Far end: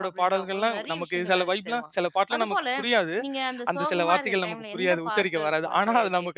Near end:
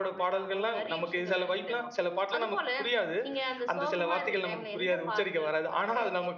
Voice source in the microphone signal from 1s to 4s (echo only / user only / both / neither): echo only